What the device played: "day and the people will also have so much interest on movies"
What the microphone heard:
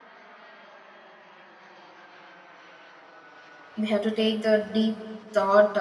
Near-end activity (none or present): present